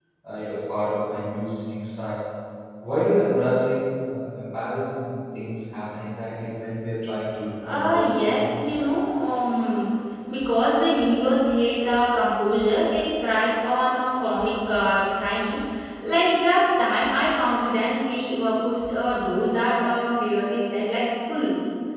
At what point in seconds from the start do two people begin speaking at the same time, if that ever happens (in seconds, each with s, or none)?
7.6 s